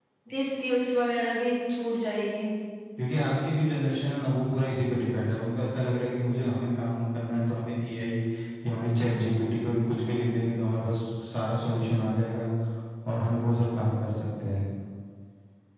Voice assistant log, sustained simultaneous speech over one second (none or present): none